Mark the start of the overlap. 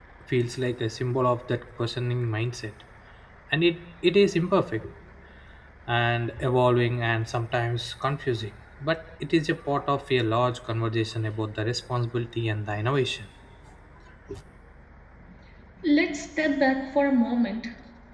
none

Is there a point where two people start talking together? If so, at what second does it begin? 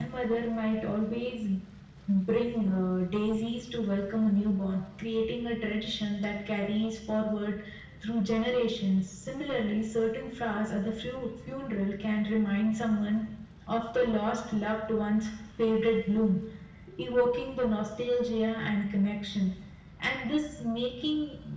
none

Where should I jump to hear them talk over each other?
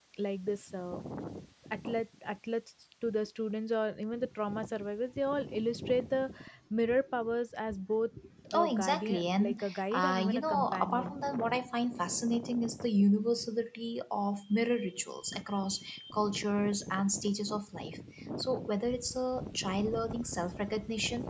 8.6 s

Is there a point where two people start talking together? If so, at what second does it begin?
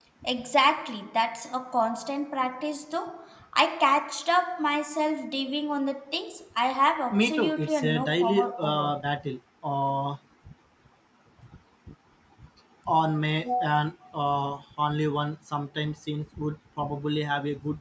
7.1 s

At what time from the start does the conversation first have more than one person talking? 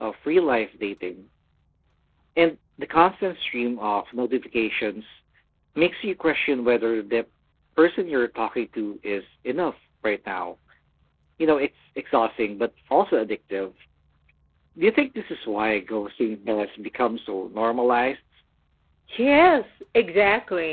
none

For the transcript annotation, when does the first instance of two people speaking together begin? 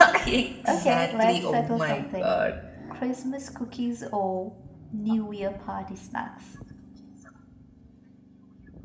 0.7 s

